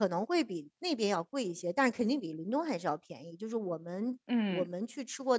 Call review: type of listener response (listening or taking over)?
listening